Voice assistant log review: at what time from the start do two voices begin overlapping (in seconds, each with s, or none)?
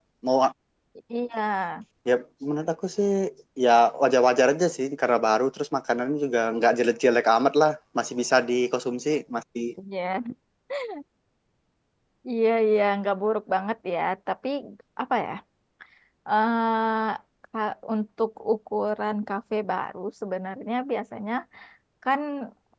none